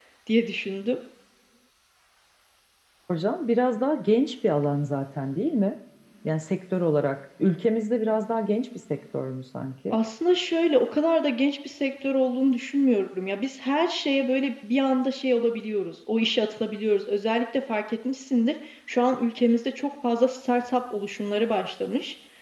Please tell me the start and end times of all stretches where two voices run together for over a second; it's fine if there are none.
none

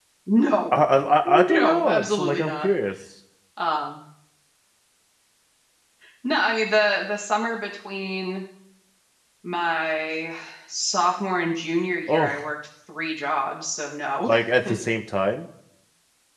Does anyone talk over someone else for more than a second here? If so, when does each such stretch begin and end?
1.2-2.7

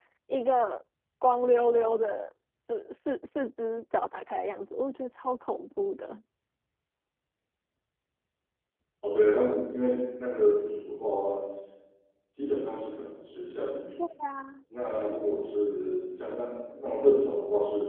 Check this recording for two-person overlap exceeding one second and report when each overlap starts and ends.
none

